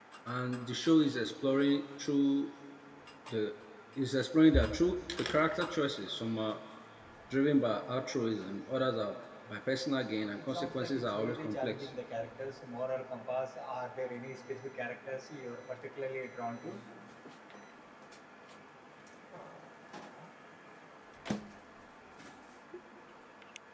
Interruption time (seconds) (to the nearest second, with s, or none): 10 s